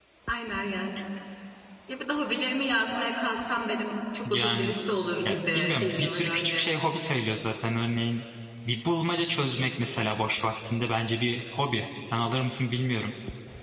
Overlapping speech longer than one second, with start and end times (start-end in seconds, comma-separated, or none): 5.2-6.7